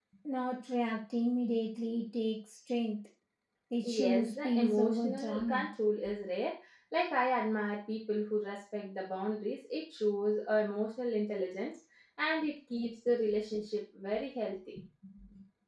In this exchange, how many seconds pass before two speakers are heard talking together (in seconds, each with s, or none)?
3.8 s